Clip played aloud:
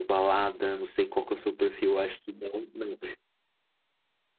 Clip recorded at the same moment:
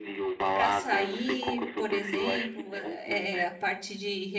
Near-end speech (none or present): present